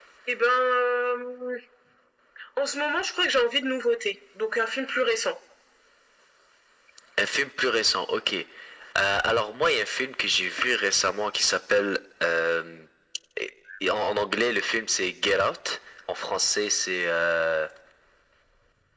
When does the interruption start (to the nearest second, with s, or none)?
none